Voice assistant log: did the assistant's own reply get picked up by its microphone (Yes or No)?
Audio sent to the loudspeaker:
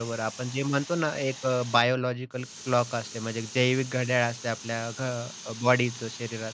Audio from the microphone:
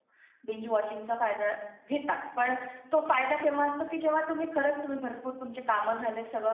No